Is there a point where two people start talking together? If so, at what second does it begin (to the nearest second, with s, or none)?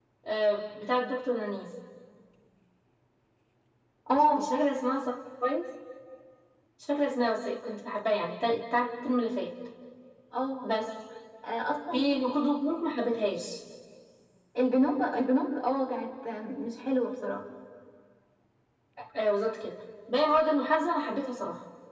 none